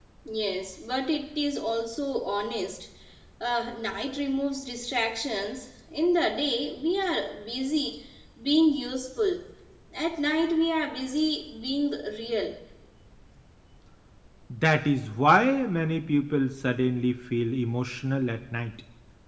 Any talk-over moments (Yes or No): No